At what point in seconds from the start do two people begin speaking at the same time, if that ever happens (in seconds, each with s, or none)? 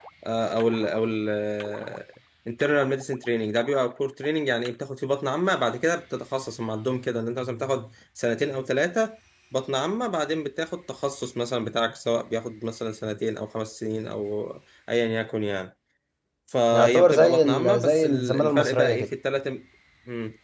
16.7 s